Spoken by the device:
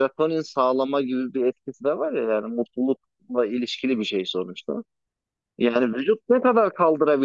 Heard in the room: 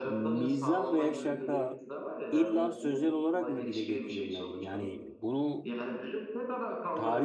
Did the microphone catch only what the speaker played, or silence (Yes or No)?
No